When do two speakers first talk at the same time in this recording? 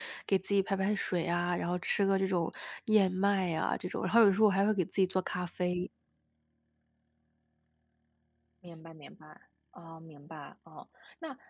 none

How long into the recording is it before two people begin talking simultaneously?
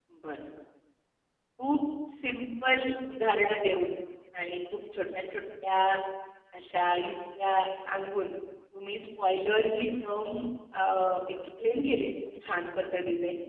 none

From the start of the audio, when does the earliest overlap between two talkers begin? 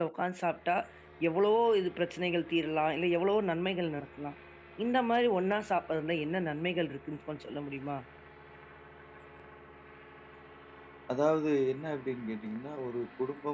none

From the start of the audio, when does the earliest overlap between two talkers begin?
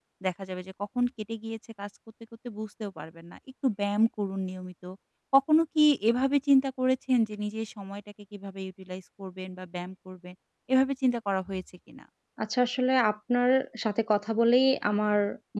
none

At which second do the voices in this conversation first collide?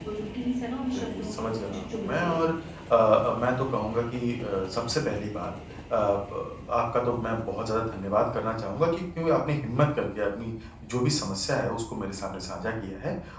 0.9 s

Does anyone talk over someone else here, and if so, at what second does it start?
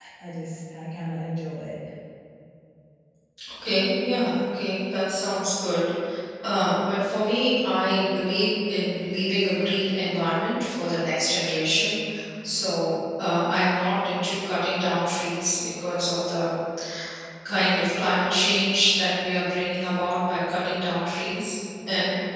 none

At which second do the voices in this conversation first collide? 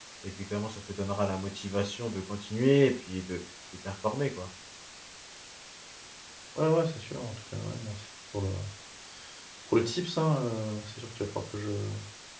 none

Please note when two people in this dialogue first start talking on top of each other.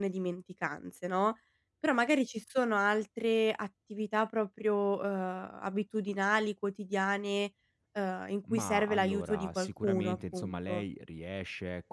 8.5 s

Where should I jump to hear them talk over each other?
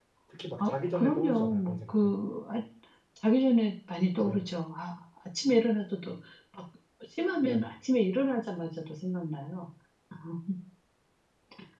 0.6 s

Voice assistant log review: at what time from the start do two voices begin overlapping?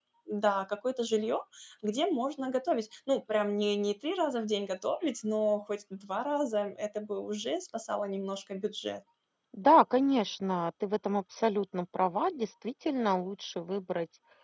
none

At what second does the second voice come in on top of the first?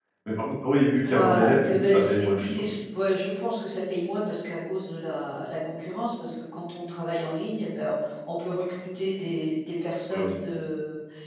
1.1 s

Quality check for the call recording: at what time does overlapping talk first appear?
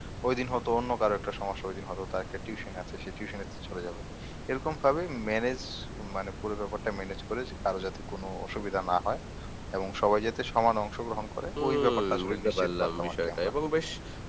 11.6 s

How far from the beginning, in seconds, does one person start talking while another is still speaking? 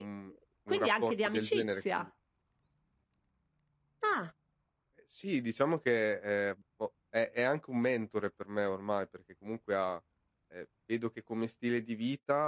0.7 s

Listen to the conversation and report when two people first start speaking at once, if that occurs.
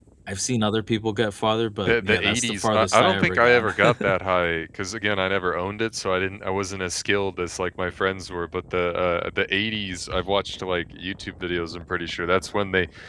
1.9 s

